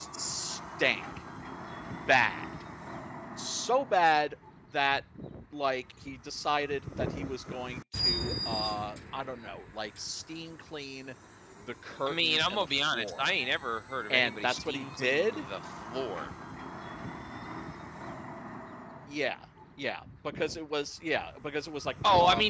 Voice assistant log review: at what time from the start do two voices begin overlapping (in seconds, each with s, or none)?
12.0 s